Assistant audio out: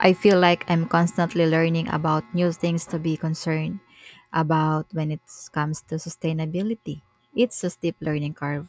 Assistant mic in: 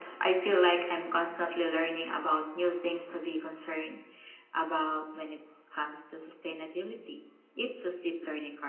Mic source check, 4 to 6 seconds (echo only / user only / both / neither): echo only